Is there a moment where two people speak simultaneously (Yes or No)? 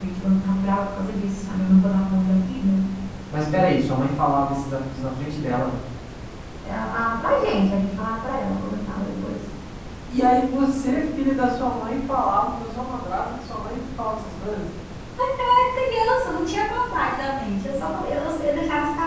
No